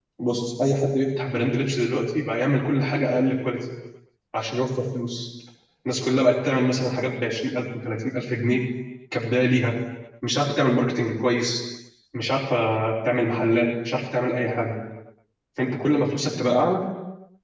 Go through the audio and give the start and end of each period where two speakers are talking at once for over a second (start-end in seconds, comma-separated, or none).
none